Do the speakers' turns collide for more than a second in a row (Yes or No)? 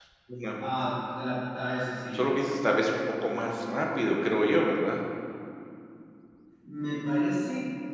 No